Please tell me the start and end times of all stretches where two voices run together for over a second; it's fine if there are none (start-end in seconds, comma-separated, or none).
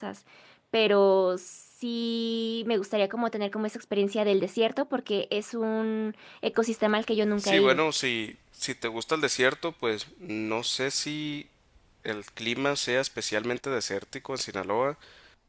none